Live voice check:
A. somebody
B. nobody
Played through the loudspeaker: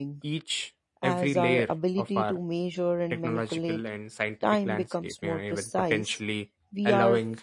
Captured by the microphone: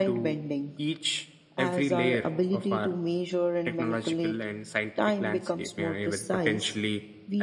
B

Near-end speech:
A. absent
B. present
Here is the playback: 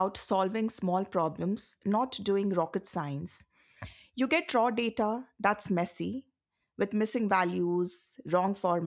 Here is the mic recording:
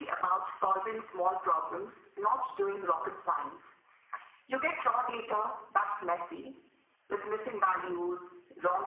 A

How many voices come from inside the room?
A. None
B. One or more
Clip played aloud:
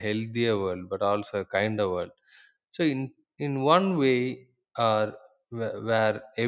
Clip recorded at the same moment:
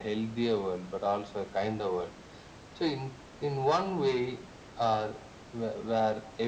A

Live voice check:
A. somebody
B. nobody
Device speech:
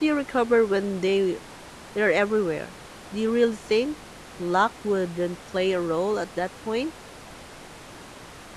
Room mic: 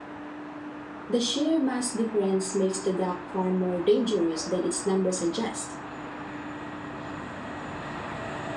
A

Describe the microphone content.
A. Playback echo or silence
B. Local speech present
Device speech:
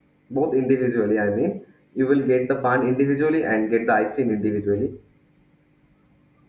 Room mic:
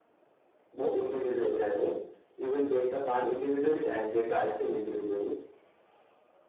A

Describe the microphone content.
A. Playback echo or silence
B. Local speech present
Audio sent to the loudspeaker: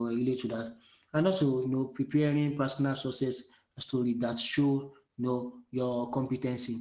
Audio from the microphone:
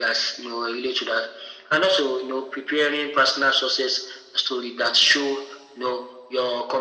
A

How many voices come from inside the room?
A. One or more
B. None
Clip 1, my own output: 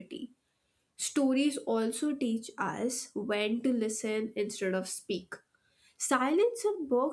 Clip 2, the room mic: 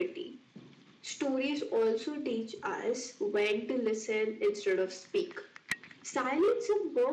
B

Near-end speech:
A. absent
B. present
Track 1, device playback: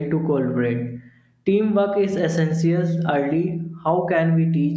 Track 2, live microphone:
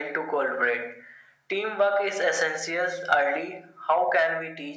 A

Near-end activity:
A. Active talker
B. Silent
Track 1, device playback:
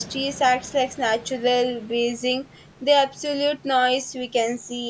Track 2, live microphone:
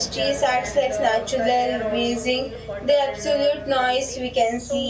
A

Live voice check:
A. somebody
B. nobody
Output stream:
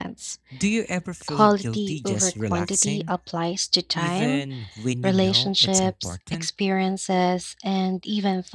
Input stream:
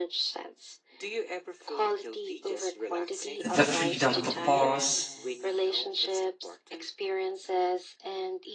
A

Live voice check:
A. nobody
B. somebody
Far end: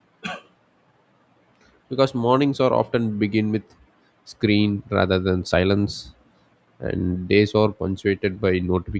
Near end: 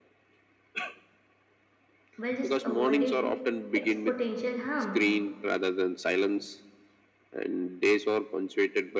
B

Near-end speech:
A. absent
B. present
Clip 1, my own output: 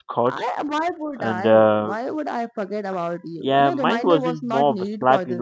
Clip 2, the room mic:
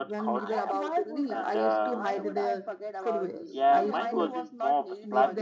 B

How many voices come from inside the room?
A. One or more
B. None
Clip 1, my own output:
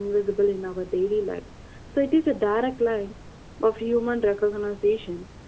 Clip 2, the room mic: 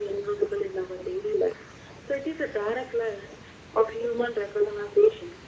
B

